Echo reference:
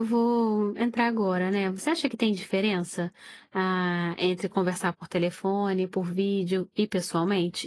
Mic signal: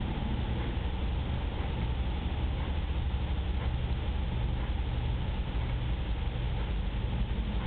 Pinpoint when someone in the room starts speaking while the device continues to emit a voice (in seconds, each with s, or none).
none